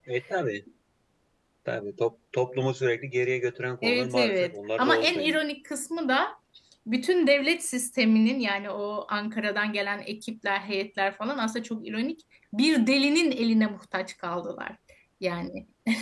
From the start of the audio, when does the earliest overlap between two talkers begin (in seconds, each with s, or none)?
3.8 s